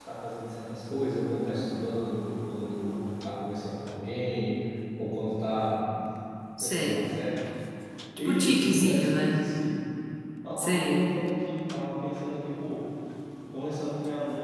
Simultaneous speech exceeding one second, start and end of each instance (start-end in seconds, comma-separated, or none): 8.2-9.4